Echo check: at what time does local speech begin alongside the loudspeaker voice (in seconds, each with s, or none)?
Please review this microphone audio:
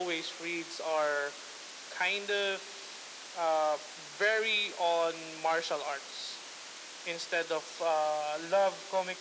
none